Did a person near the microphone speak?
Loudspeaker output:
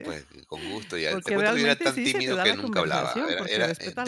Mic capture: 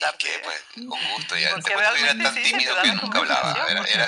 Yes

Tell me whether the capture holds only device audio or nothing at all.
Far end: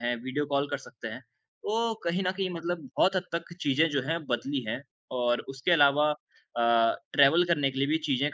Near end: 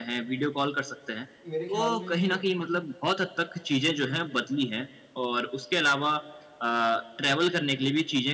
No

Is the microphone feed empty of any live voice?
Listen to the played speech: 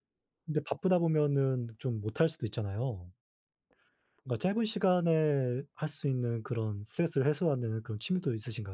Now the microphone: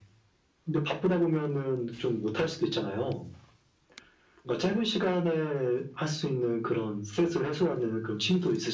Yes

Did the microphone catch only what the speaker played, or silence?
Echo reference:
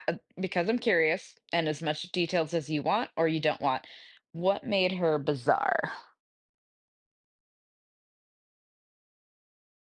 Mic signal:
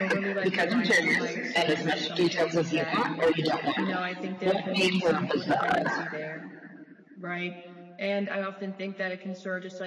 No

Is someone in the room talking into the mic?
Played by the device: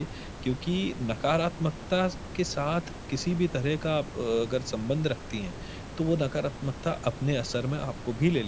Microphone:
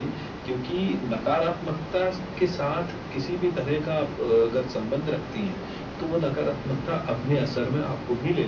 No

